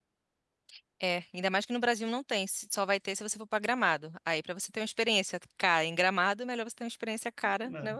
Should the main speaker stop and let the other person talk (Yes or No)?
Yes